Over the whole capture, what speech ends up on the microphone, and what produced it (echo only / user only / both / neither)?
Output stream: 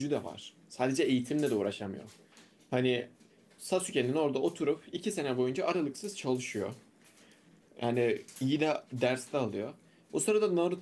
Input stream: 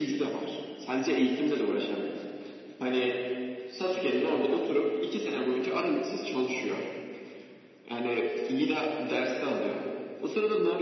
echo only